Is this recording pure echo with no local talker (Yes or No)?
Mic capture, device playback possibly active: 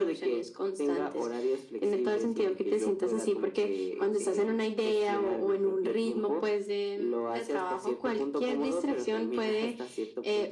Yes